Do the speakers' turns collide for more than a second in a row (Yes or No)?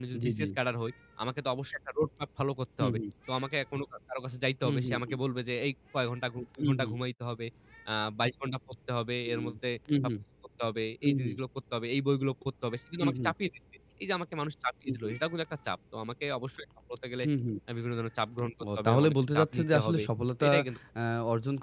Yes